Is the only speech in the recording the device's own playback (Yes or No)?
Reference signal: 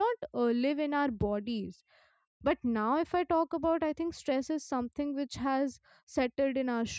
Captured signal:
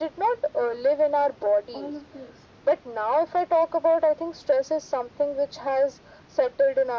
No